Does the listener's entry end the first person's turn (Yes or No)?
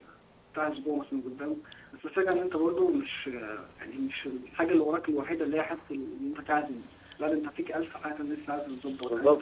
Yes